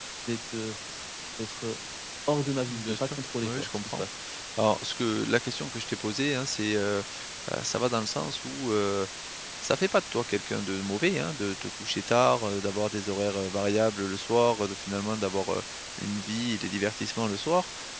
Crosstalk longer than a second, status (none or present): present